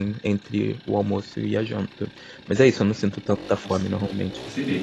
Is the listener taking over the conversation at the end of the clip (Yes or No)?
Yes